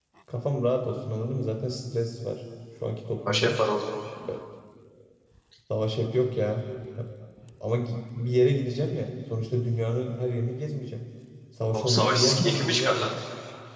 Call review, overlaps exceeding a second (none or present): present